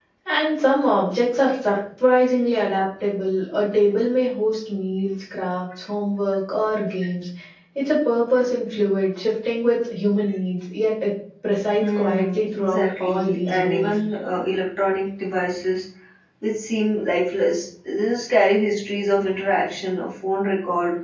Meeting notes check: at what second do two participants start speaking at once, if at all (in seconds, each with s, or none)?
11.8 s